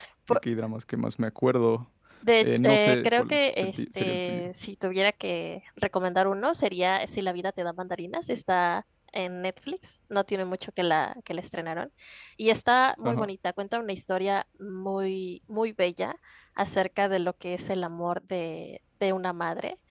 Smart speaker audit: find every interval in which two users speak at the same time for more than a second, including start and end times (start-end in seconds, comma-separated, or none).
2.4-4.4